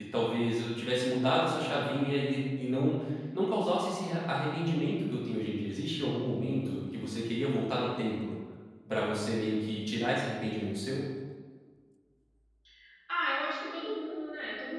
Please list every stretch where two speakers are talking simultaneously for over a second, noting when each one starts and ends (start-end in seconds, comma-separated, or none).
none